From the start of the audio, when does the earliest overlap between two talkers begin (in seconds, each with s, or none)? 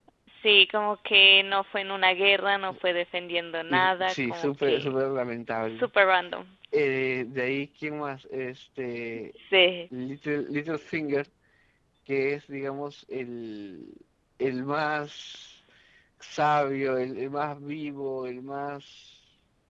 3.7 s